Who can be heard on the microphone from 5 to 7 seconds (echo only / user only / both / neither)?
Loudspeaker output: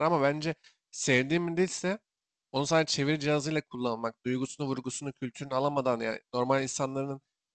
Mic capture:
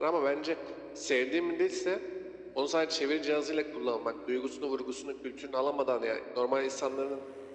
echo only